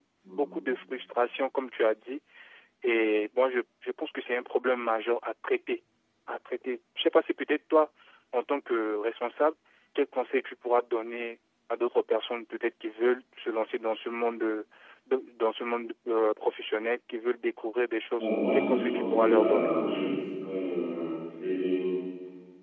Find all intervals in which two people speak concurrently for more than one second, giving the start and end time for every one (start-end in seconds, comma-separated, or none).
18.2-19.7